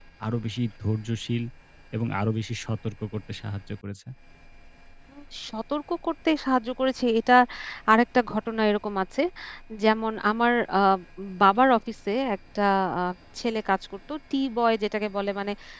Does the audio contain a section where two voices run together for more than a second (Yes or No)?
No